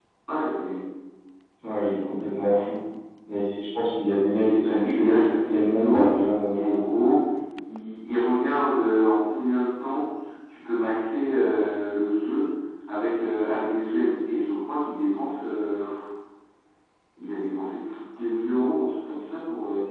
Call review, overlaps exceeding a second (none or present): present